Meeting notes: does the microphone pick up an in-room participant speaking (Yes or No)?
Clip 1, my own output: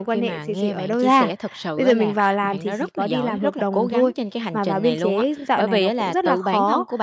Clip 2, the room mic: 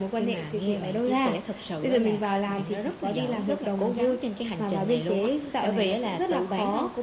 No